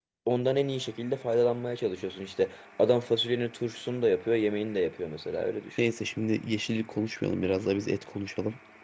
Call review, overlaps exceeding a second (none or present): none